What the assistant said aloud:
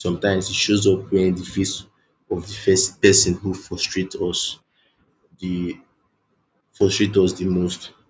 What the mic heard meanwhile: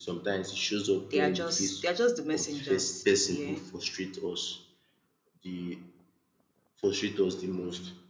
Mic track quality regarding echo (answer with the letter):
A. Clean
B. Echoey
B